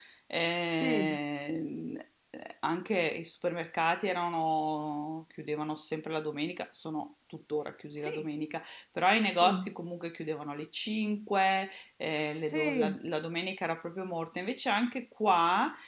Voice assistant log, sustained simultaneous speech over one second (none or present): none